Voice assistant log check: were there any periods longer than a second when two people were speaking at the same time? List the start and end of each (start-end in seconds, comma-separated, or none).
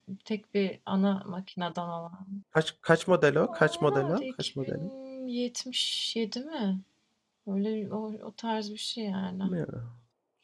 3.5-4.9